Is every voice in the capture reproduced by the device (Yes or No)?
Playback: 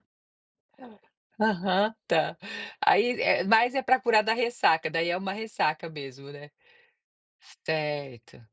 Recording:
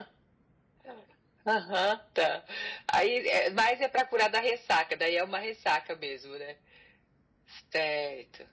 Yes